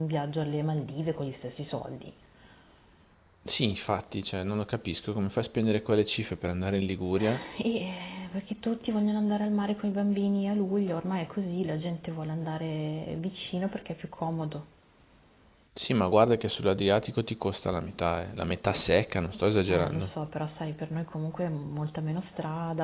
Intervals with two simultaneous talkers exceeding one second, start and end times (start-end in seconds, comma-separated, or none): none